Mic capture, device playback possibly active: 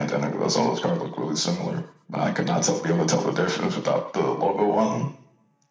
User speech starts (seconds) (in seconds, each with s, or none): none